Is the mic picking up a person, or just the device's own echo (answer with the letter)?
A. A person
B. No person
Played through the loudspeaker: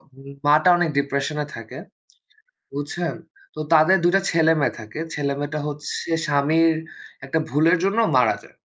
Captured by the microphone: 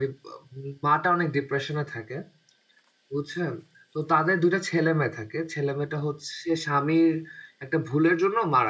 B